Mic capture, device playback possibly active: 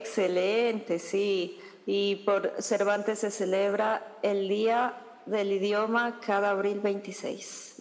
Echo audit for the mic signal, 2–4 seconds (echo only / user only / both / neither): echo only